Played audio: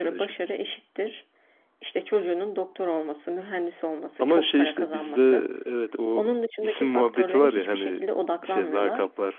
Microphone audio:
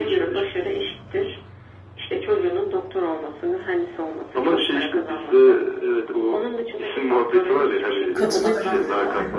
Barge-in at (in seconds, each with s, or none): 8.1 s